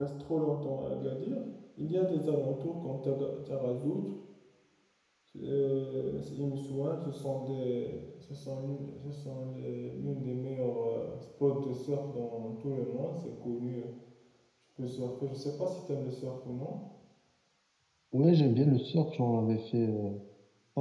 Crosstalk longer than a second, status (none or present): none